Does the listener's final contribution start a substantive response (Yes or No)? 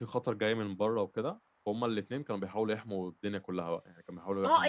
Yes